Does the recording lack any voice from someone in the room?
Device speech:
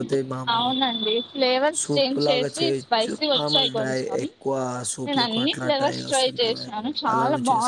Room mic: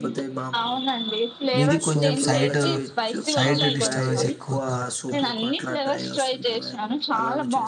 No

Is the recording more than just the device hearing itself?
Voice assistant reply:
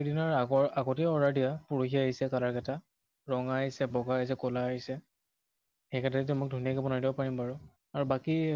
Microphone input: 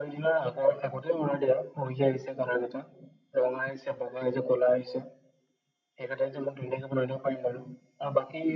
No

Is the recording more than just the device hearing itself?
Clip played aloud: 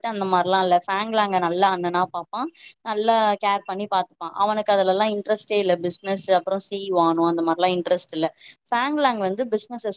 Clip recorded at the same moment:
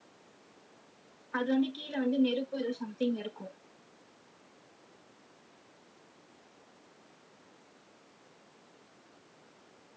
Yes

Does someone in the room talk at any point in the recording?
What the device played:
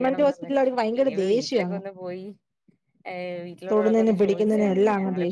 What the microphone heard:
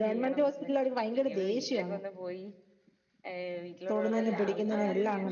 Yes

